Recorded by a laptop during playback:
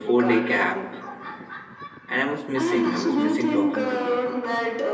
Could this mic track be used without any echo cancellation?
No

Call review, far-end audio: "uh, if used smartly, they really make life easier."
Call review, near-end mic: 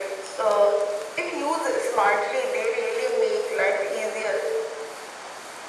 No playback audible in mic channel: No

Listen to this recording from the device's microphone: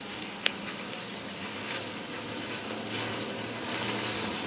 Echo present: No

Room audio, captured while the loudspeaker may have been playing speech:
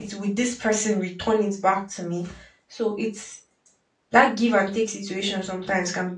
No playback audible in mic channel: Yes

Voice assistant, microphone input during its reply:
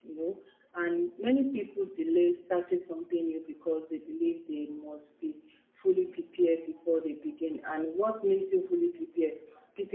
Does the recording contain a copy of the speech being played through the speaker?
No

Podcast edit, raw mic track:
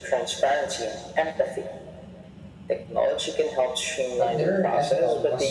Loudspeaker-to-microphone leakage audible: Yes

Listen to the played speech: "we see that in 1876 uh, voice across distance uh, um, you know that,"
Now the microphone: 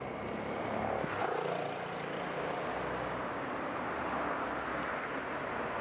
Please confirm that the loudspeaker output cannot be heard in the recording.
Yes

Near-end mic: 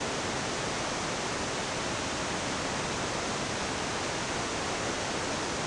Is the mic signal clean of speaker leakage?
Yes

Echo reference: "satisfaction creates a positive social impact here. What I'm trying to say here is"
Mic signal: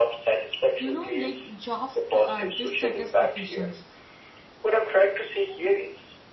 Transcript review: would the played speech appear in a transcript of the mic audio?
Yes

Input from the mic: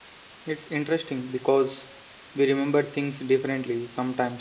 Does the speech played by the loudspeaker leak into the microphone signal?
No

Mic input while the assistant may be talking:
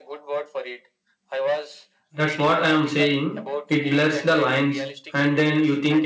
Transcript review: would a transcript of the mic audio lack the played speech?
No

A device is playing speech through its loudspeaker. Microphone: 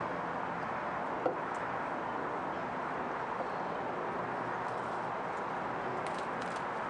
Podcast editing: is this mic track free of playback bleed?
Yes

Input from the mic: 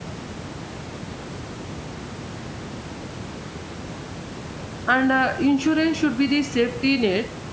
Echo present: No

